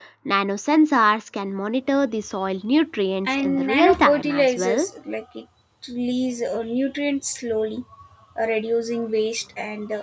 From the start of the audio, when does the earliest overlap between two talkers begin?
3.3 s

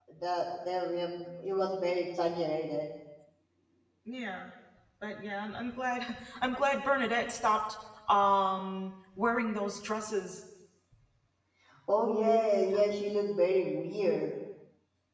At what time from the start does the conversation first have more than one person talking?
none

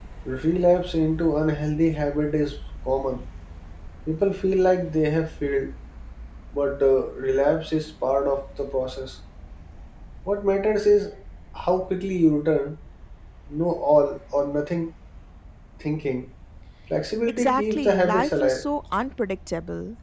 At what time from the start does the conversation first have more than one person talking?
17.3 s

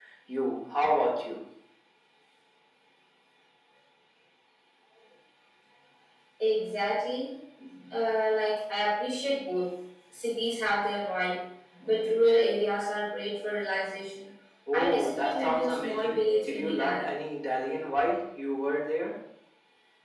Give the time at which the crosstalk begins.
14.7 s

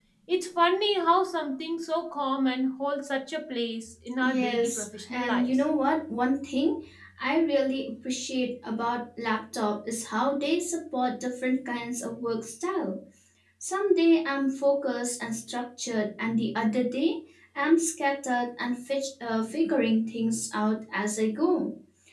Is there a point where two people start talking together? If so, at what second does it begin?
4.2 s

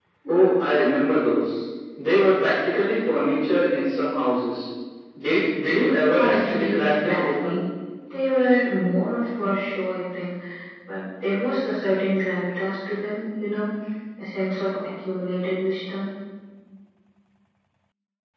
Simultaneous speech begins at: 6.2 s

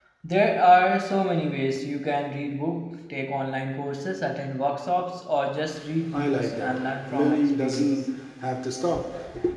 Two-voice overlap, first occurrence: 5.9 s

